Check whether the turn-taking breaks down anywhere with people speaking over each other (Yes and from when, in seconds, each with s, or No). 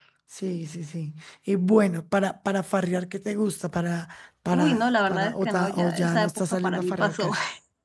Yes, from 4.5 s